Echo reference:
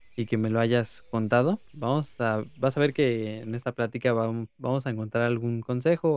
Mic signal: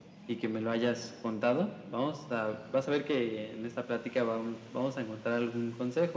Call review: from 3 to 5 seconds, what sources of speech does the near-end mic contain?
echo only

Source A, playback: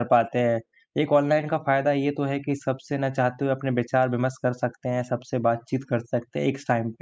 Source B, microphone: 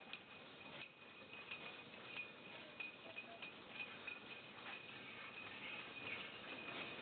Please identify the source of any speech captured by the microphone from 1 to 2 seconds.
neither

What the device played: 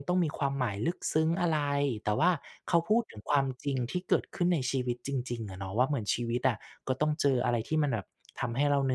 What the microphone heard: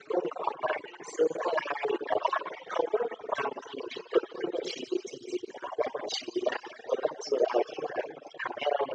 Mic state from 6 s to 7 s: echo only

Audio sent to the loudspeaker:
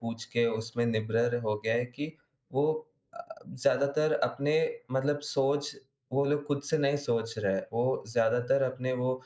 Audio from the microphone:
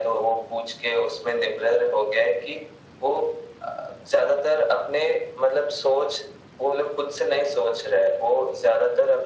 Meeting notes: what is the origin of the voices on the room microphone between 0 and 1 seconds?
echo only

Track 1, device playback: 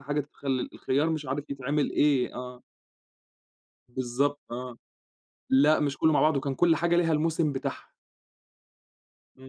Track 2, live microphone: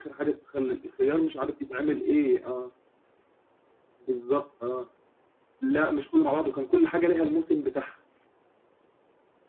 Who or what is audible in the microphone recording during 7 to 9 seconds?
echo only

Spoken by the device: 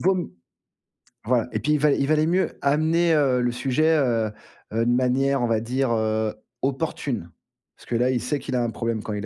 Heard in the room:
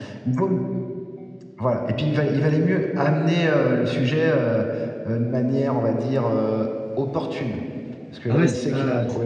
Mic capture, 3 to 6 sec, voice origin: echo only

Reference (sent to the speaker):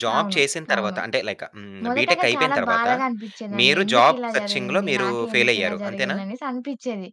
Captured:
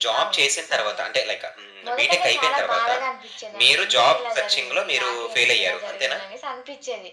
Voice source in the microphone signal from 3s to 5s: echo only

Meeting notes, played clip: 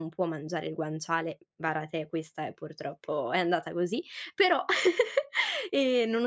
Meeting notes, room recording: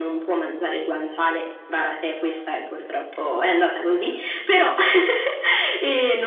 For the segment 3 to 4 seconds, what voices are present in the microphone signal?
echo only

